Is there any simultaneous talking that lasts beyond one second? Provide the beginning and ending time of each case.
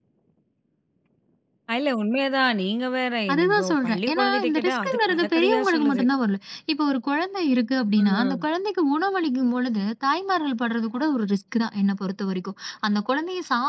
3.3-6.0

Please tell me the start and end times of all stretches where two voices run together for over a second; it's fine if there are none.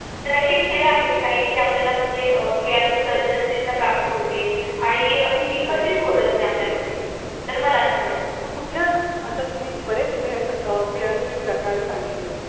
none

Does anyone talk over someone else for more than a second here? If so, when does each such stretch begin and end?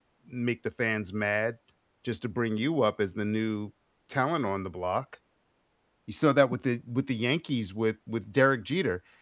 none

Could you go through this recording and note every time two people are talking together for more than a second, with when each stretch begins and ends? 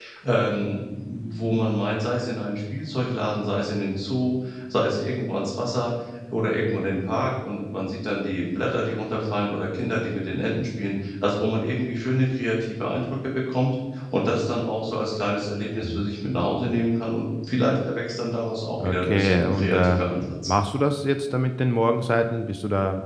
18.8-20.0

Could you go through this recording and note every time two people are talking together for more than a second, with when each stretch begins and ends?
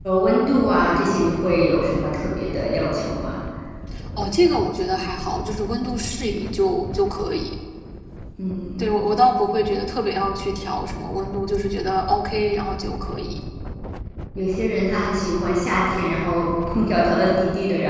none

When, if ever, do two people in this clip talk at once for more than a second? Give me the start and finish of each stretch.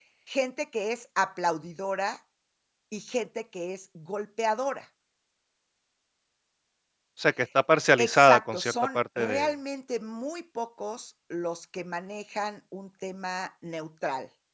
8.0-9.5

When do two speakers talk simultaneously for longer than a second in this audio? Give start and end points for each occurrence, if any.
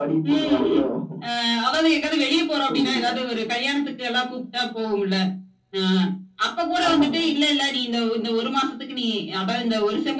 none

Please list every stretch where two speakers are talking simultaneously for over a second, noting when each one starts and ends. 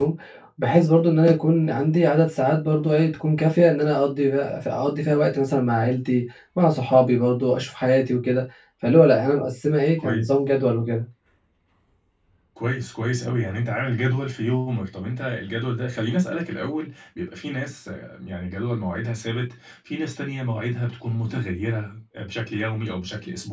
none

